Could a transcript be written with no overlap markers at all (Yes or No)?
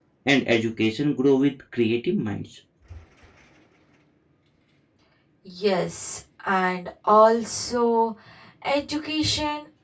Yes